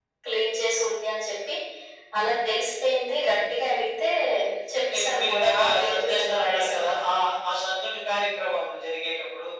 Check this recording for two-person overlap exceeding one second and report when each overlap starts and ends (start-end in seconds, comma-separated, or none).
4.9-7.0